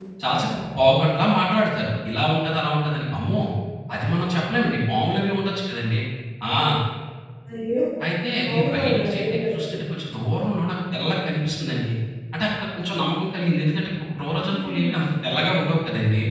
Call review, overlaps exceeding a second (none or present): present